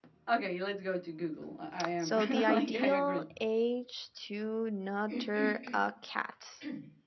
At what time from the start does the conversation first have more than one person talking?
2 s

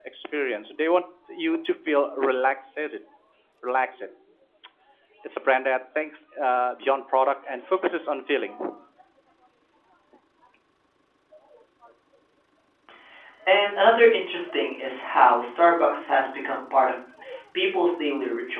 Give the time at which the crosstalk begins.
none

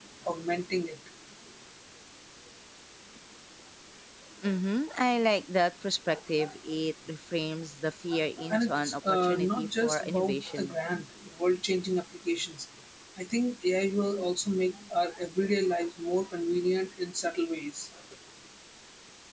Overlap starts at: 9 s

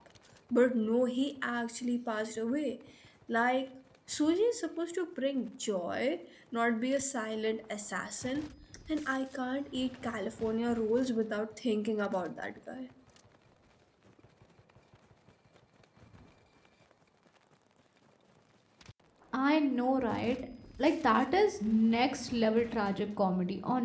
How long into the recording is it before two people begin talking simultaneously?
none

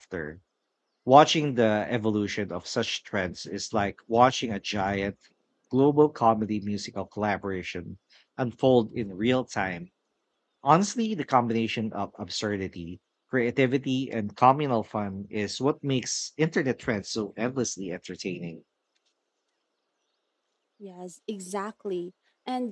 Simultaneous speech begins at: none

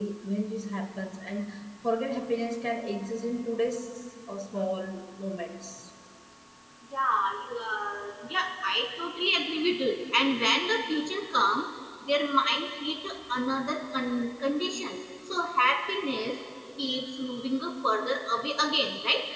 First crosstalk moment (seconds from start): none

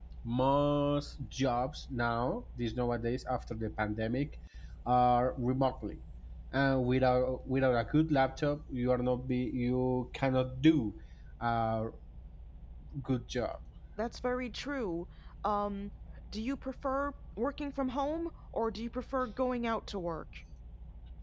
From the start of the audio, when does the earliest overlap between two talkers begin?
none

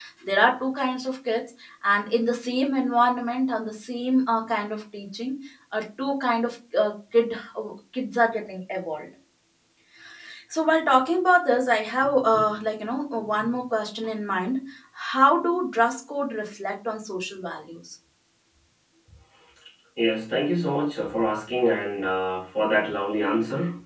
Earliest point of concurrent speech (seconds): none

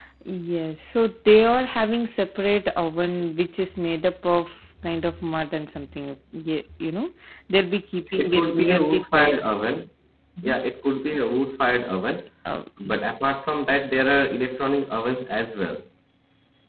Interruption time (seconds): 8 s

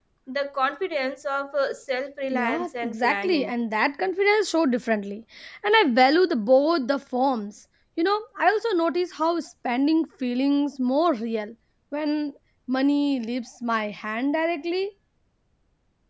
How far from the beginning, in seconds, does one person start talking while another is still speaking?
2 s

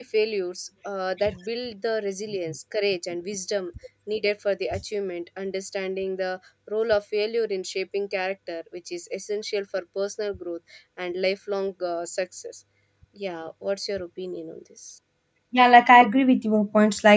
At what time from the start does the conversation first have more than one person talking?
none

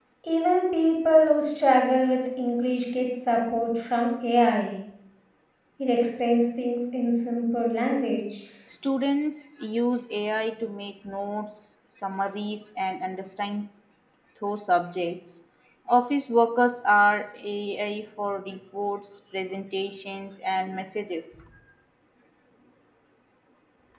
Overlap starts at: none

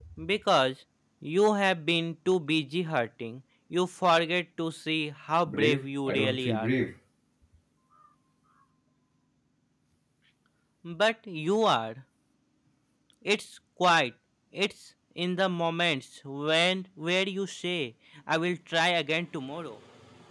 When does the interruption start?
5 s

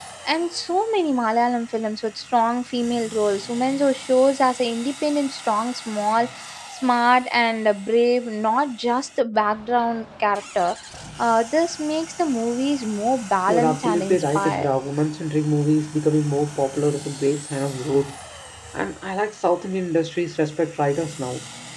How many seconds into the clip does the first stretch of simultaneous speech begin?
13 s

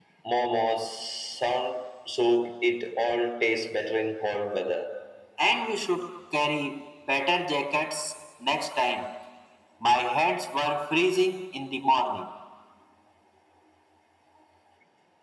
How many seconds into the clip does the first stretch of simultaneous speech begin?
none

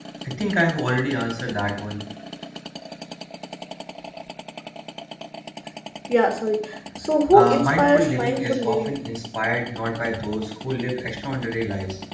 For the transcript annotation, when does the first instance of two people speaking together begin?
7 s

